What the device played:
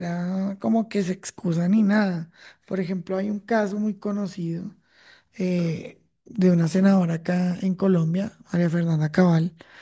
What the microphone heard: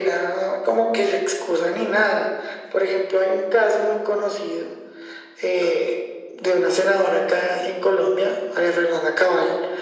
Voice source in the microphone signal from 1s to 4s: echo only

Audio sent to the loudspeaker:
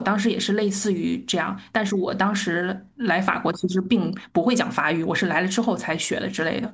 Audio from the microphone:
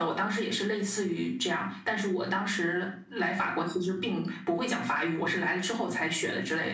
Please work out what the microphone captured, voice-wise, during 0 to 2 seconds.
echo only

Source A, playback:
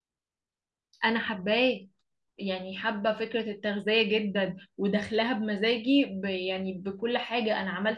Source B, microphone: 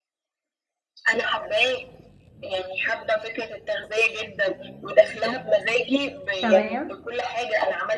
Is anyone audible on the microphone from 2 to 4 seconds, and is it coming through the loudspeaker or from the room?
echo only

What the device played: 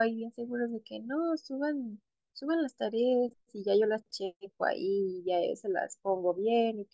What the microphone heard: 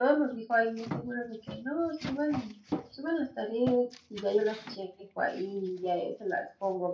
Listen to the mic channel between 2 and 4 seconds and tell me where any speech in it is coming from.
echo only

